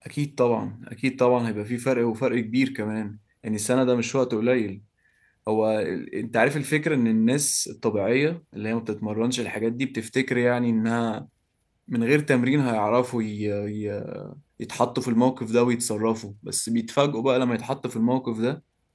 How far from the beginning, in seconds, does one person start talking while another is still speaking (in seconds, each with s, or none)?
none